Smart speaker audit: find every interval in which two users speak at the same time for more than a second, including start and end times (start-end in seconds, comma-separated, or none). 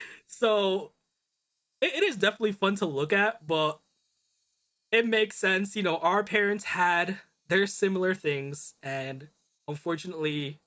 none